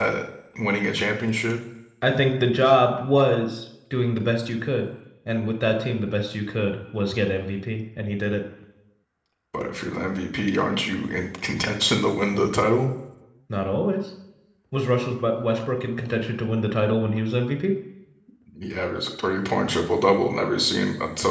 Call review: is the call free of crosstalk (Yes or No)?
Yes